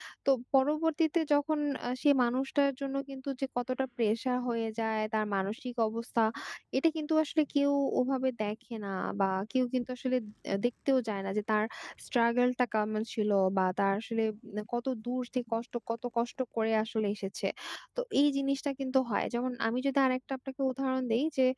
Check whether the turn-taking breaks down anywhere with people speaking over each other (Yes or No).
No